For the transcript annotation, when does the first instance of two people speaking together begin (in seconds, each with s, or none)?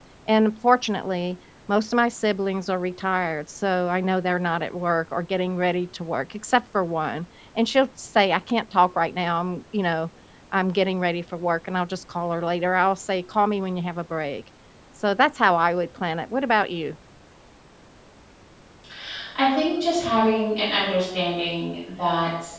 none